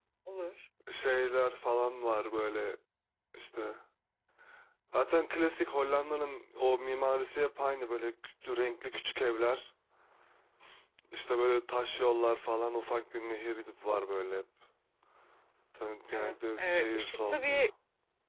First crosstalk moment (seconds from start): 16 s

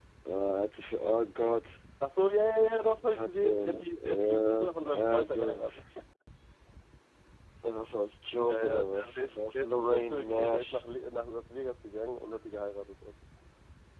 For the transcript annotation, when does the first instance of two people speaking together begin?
3 s

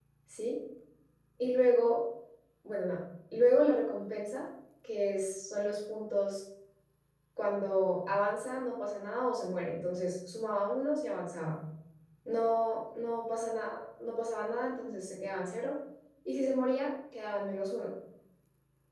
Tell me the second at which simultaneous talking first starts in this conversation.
none

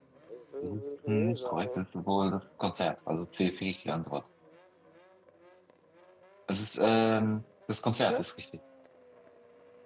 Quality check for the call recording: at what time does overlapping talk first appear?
1 s

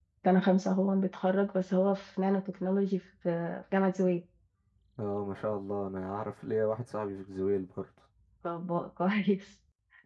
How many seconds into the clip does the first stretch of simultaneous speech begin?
none

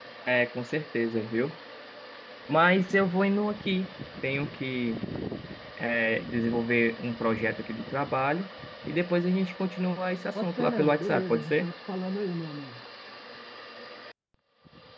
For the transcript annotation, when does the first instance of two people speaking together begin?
10 s

